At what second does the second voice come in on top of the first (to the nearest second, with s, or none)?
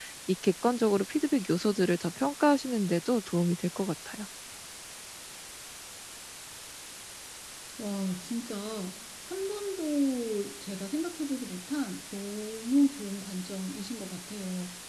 none